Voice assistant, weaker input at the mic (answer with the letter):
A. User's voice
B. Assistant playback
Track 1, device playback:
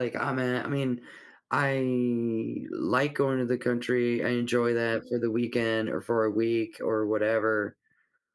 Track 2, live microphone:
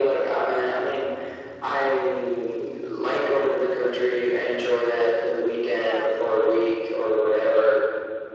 A